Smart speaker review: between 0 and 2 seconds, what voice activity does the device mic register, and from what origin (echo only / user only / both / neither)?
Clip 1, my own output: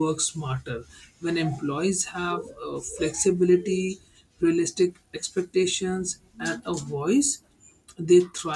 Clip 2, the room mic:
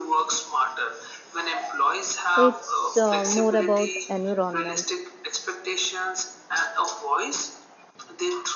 echo only